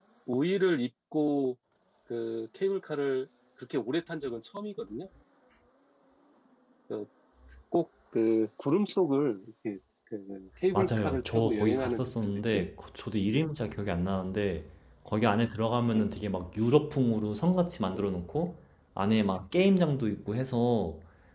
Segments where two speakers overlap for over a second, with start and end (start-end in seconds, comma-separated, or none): 10.7-12.7